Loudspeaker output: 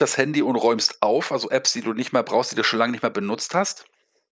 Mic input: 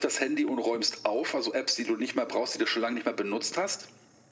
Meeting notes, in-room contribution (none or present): none